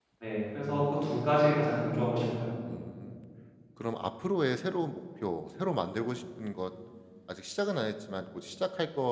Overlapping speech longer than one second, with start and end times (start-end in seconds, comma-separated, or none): none